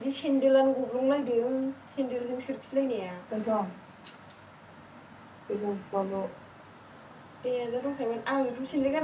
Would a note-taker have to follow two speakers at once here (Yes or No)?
No